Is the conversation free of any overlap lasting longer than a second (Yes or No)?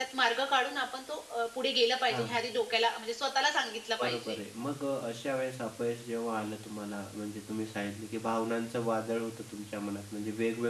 Yes